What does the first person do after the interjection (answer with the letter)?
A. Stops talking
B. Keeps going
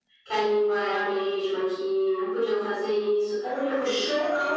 A